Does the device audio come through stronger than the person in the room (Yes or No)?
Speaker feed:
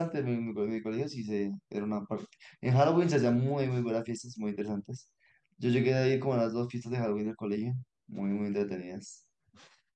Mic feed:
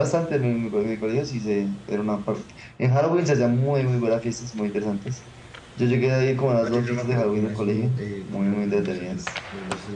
Yes